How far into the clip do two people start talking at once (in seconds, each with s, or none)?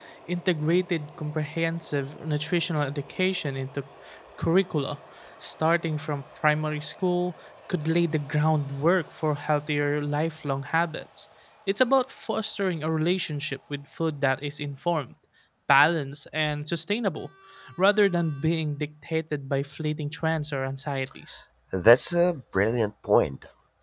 none